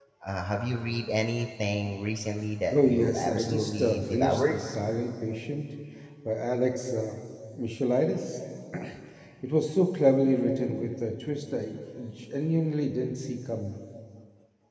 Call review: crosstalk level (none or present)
present